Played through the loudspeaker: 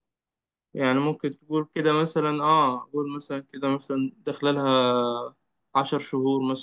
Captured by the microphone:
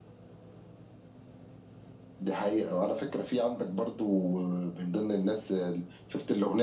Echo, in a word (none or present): none